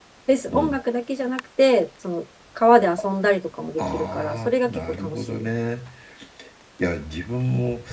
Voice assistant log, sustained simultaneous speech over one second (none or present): present